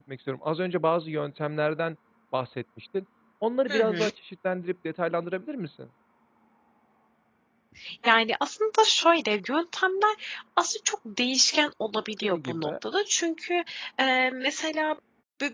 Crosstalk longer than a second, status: none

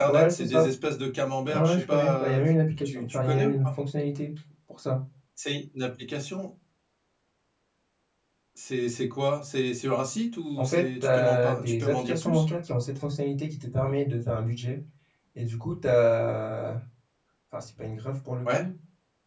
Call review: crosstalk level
present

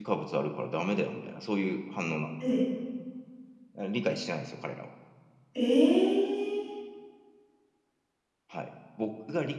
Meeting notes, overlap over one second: none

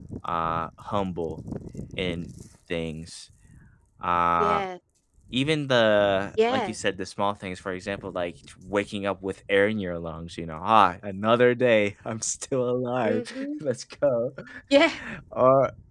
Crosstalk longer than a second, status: none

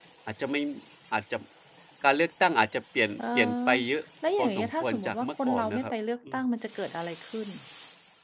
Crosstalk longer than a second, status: present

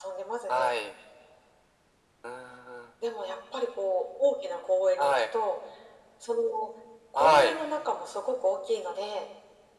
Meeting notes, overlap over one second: none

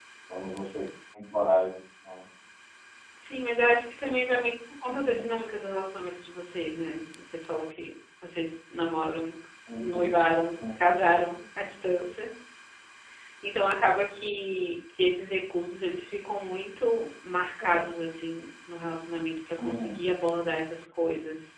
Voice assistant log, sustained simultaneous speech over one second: none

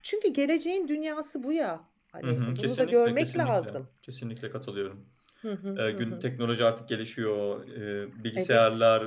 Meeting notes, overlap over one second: present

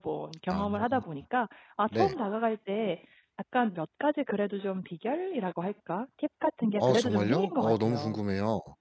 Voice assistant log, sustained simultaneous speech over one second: present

